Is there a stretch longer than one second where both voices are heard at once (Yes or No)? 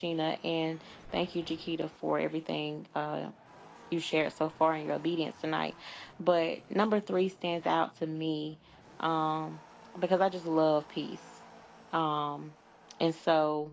No